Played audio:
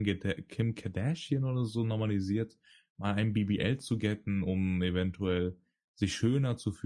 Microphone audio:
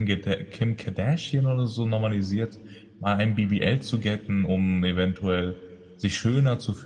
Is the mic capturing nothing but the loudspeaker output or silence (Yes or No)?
Yes